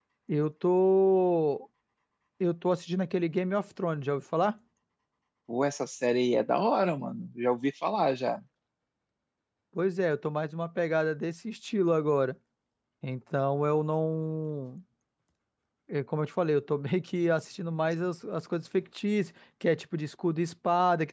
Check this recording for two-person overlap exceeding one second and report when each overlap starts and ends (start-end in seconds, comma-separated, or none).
none